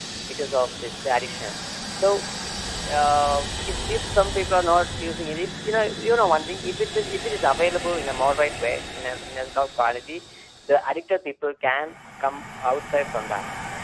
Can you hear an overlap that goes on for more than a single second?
No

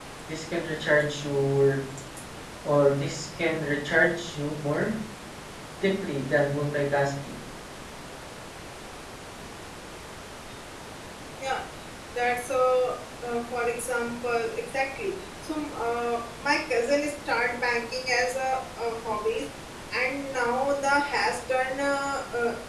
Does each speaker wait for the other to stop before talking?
Yes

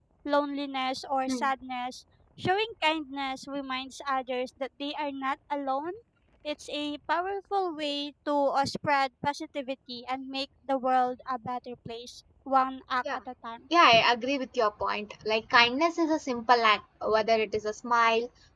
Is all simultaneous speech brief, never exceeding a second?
Yes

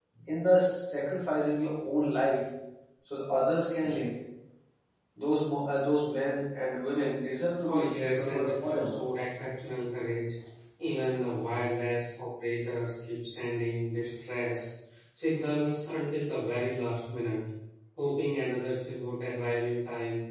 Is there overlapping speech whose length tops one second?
Yes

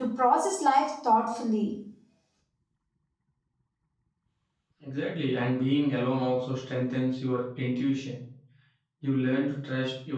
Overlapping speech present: No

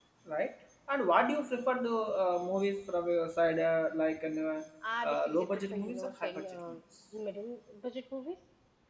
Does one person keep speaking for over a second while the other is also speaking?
Yes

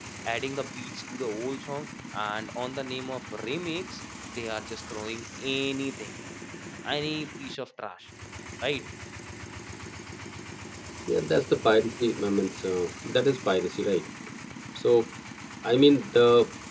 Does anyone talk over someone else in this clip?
No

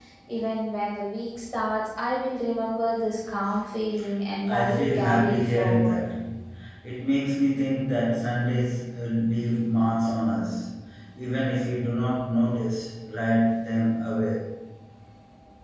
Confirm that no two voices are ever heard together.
No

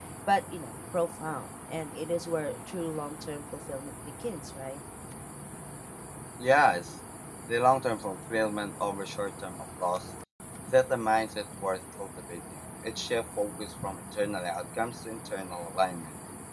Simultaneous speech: No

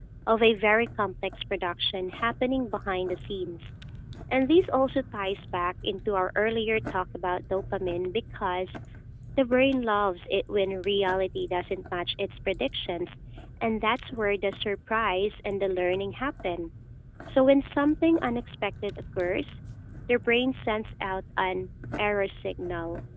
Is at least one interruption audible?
No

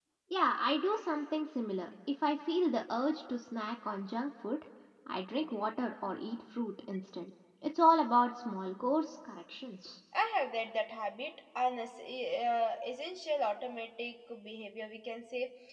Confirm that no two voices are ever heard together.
Yes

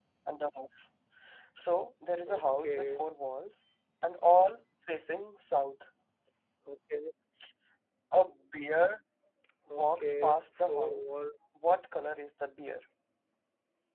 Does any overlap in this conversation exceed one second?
Yes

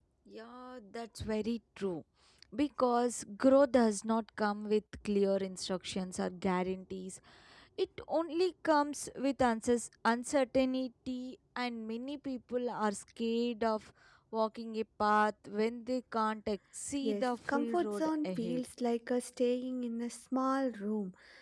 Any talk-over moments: Yes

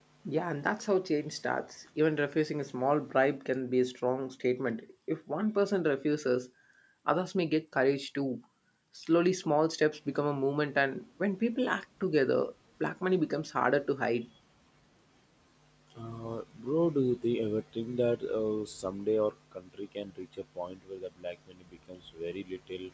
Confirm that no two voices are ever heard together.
Yes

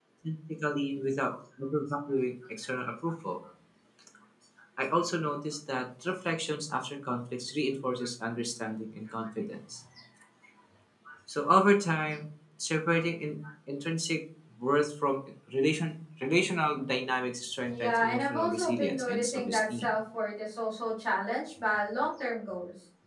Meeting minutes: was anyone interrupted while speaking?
Yes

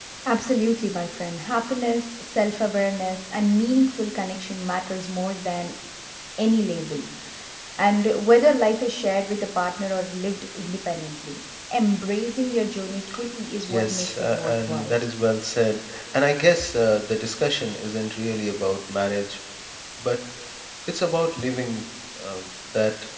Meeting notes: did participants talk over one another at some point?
Yes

